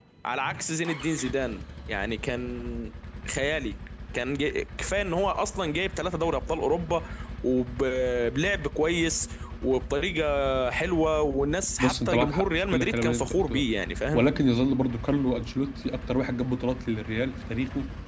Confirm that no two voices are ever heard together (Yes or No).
No